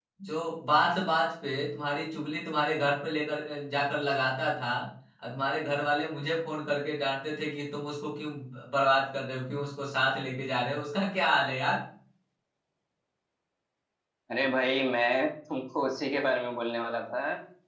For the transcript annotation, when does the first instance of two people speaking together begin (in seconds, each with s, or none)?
none